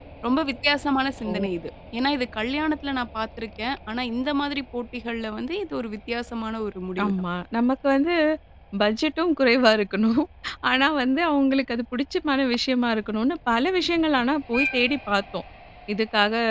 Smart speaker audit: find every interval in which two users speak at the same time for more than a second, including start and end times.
none

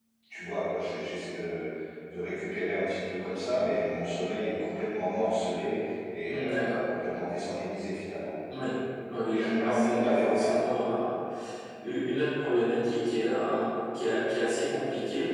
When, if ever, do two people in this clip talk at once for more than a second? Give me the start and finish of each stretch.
9.3-10.6

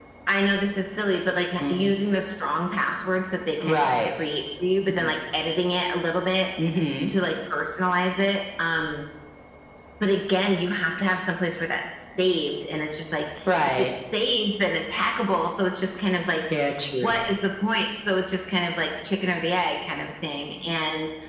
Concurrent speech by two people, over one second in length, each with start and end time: none

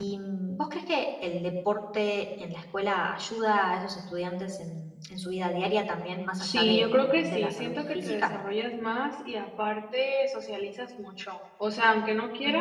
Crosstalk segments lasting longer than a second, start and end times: 6.4-8.3

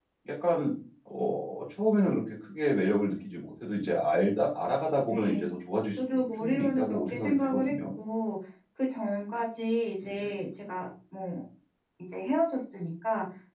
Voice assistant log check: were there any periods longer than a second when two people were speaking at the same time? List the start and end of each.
6.0-7.7

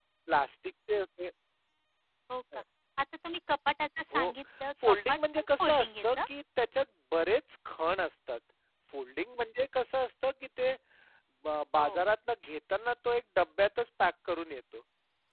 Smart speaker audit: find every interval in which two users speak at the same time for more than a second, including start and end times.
4.8-6.1

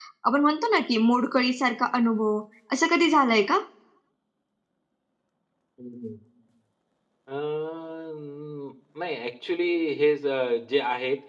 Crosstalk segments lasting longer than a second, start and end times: none

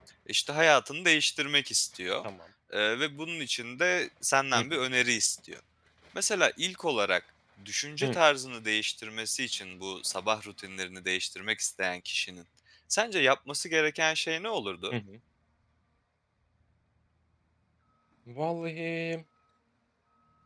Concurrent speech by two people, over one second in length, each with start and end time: none

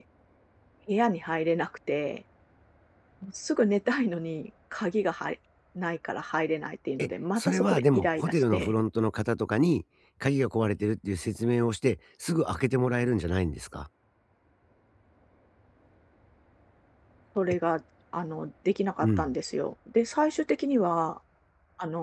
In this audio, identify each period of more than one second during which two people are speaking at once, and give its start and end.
7.0-8.7

